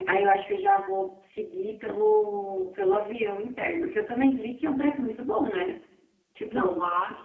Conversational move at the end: taking over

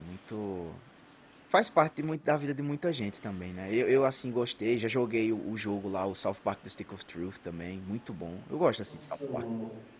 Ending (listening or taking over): taking over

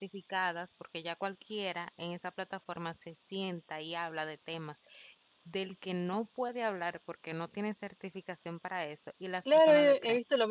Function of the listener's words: taking over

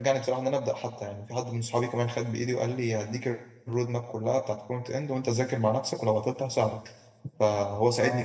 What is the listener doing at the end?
taking over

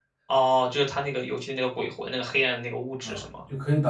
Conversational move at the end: taking over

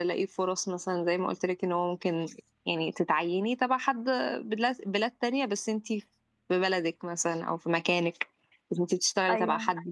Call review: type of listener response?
listening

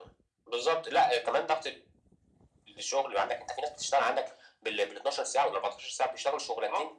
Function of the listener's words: taking over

